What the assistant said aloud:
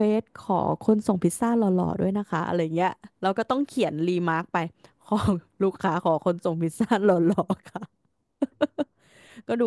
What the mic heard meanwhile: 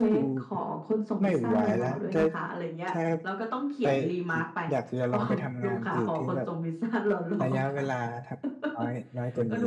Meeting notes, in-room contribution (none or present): present